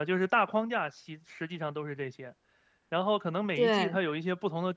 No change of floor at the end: Yes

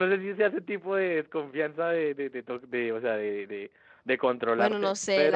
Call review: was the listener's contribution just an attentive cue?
No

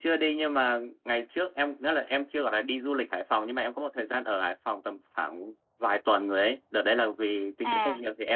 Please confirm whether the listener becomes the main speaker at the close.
No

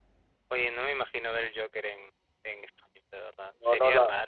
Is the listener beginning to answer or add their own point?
Yes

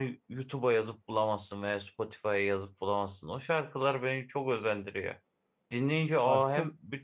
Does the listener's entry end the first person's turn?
No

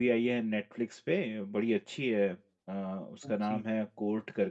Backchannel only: Yes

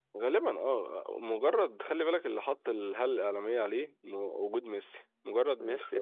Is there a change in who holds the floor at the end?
No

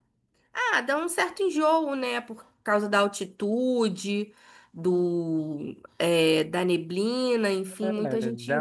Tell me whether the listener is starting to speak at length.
Yes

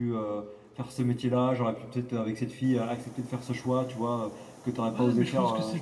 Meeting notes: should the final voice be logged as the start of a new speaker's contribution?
Yes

